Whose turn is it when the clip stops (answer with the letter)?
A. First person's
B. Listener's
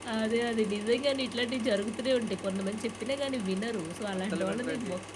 A